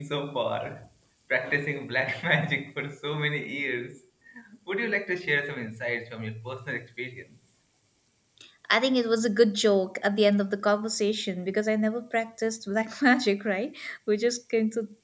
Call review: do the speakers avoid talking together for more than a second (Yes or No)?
Yes